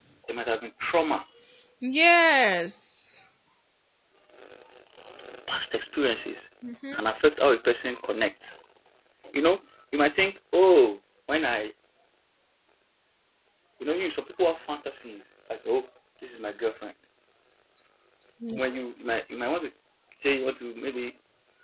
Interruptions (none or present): none